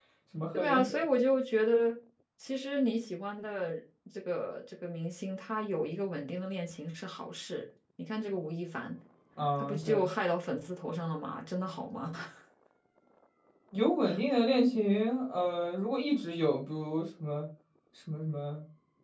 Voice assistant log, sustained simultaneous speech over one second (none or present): none